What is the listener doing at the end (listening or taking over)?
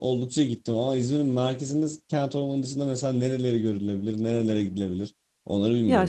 taking over